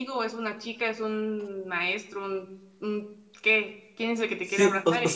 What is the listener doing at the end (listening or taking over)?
taking over